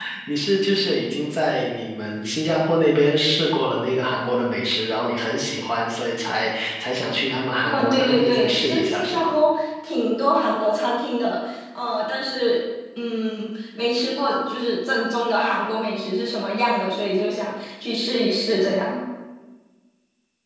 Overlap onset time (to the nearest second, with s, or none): 8 s